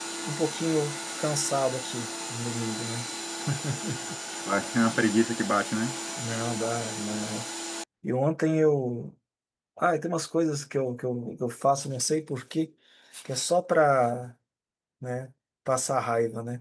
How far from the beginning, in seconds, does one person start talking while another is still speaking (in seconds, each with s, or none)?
none